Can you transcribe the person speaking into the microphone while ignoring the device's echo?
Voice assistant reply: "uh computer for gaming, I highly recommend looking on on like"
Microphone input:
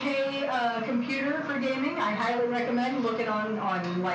none

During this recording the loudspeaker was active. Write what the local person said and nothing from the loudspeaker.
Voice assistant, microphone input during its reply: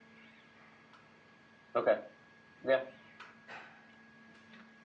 Okay. Yeah,

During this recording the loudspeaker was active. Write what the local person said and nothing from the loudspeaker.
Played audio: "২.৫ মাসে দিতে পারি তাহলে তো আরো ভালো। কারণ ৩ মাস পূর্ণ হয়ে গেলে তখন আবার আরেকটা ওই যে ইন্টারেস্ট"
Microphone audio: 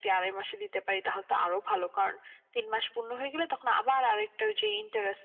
none

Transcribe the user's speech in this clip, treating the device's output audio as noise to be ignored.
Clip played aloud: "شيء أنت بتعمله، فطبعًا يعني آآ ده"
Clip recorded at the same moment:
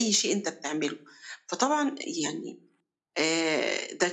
none

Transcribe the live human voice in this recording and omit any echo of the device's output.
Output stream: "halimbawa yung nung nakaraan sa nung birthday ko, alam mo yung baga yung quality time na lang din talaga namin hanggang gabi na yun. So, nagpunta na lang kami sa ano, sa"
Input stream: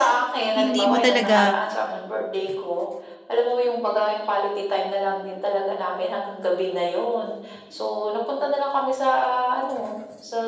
hindi mo talaga

